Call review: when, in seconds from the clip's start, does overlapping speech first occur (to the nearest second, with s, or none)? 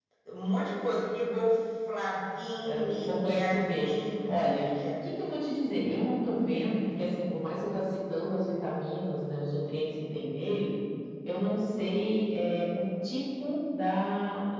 3 s